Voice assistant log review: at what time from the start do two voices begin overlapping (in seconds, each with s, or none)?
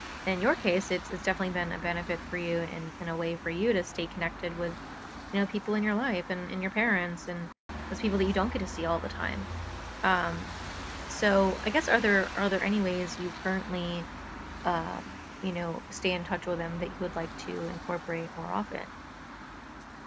none